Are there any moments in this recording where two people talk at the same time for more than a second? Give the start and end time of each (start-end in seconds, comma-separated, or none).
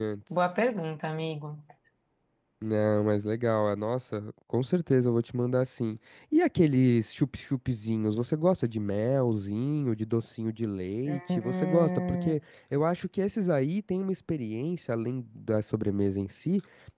11.1-12.4